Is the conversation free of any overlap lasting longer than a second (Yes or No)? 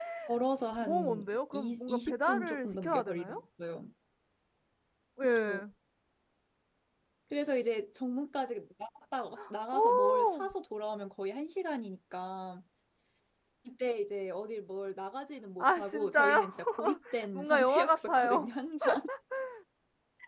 No